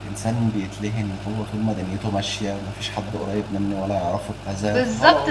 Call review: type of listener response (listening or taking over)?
taking over